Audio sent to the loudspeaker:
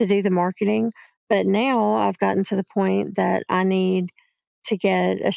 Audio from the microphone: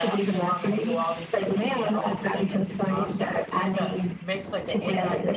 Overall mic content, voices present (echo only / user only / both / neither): both